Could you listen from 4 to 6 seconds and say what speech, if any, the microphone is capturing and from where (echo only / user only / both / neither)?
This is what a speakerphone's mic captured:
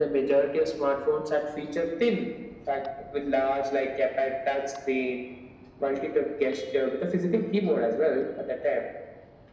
echo only